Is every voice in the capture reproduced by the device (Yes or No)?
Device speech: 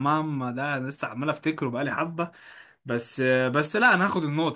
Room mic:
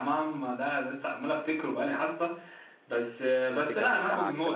No